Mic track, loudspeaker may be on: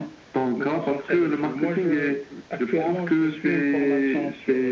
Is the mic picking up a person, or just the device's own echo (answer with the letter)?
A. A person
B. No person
B